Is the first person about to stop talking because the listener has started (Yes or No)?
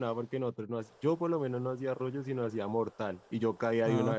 No